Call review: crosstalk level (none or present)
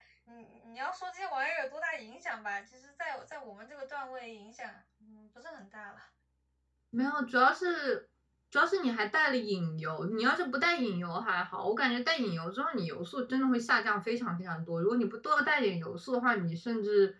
none